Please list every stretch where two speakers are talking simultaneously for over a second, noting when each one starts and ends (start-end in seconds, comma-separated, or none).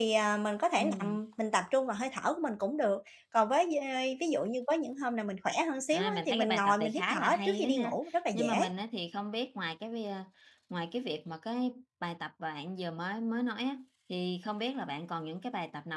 5.9-8.0